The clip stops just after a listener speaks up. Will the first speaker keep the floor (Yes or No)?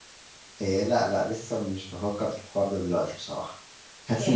No